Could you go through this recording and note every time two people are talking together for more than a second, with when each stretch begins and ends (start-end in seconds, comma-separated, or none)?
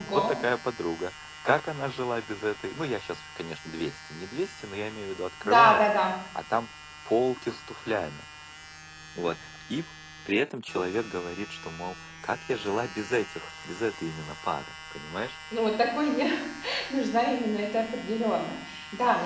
none